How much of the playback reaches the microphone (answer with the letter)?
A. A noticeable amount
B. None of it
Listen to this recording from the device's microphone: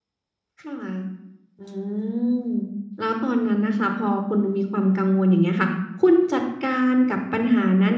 A